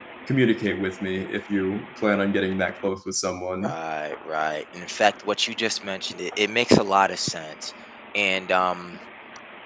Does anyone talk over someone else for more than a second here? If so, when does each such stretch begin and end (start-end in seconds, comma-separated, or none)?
none